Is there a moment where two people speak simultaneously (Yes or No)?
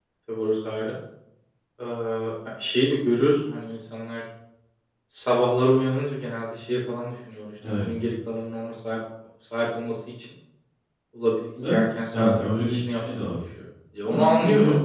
Yes